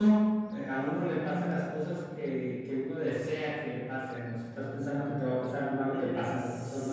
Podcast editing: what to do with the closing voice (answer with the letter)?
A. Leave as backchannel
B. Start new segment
B